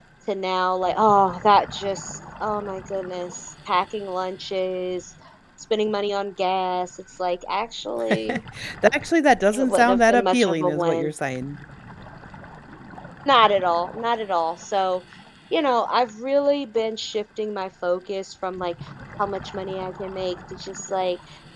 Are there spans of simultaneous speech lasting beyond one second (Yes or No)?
Yes